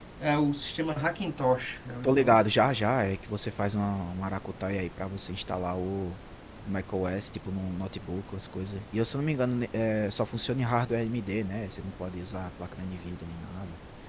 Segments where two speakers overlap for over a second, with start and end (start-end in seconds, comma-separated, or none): none